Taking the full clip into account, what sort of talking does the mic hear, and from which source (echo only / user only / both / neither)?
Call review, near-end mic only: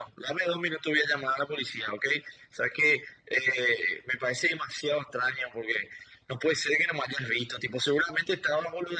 echo only